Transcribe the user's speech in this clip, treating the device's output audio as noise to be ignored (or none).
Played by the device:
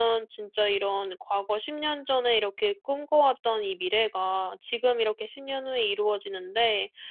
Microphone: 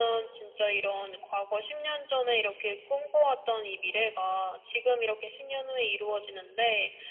none